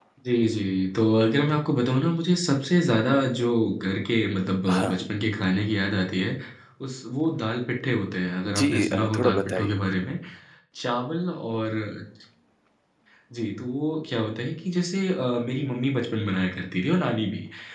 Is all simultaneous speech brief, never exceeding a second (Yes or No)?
No